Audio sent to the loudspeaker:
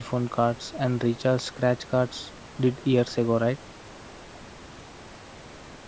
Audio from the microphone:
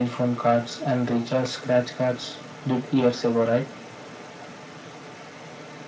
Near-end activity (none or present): none